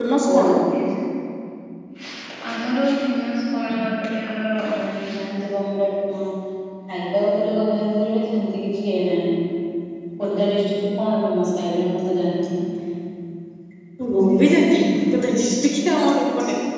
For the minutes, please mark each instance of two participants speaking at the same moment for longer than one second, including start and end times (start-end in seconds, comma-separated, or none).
none